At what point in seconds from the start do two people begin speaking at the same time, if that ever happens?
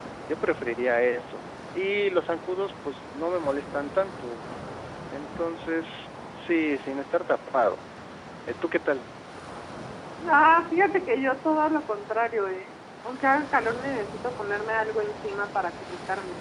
none

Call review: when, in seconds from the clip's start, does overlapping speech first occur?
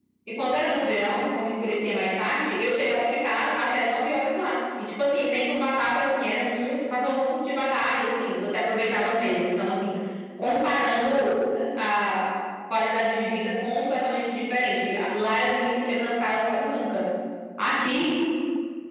none

